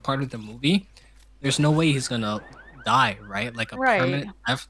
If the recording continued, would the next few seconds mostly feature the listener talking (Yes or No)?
No